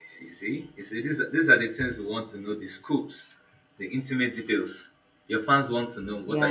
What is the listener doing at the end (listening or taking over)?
taking over